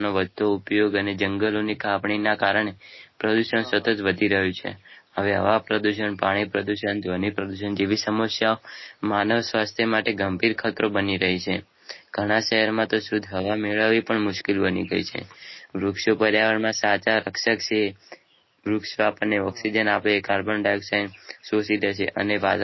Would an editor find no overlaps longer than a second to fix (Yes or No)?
Yes